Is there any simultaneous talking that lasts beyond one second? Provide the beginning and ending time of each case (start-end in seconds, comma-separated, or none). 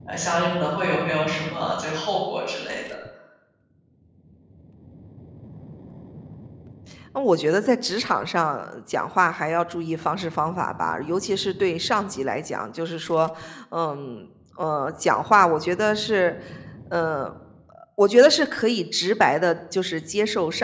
none